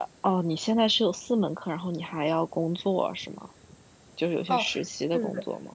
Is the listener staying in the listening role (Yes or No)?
No